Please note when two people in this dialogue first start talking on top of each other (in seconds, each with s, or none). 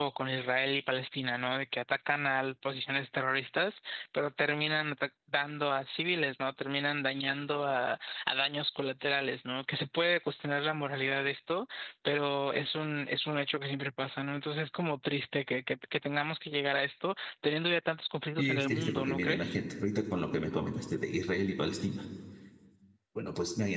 18.4 s